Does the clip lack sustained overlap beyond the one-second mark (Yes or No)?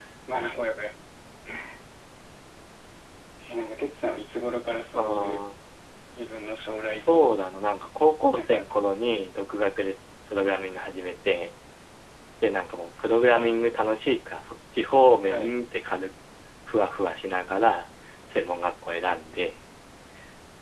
Yes